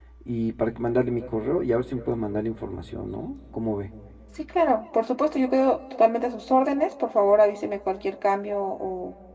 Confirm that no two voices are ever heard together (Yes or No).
Yes